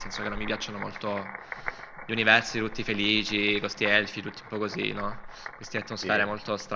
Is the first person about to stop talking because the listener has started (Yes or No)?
No